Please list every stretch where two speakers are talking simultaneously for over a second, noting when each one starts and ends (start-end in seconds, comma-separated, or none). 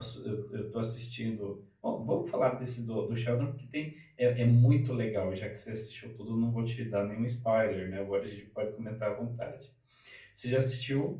none